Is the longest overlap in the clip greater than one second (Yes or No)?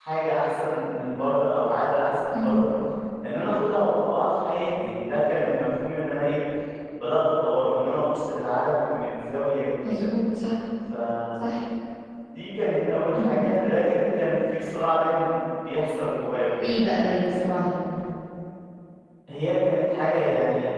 No